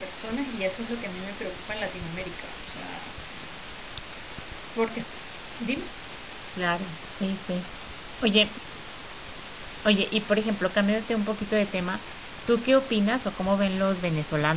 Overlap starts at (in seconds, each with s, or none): none